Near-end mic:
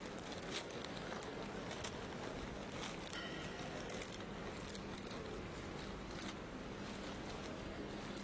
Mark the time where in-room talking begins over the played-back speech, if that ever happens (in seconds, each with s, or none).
none